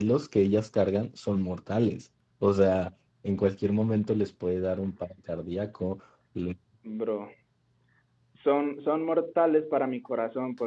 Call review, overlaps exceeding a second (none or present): none